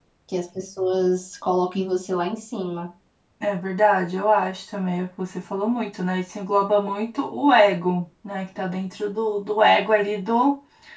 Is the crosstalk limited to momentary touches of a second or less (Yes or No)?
Yes